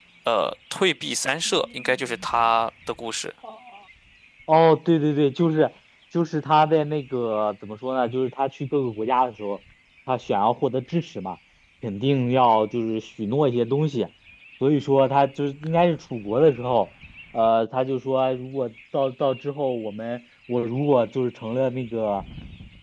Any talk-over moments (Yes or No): No